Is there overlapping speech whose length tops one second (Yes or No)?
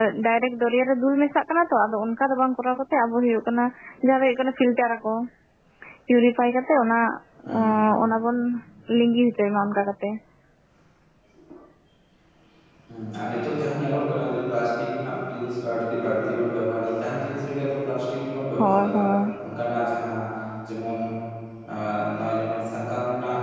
No